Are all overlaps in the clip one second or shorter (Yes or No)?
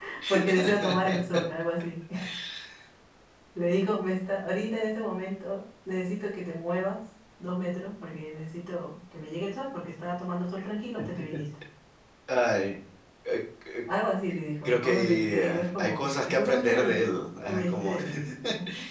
No